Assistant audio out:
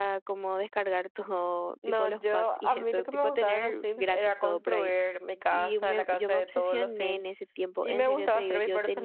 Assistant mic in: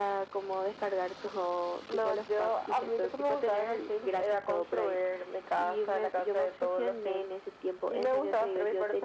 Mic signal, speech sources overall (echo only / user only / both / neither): echo only